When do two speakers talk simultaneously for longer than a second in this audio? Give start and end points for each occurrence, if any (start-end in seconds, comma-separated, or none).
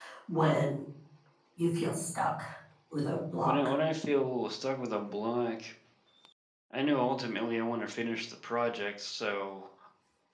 none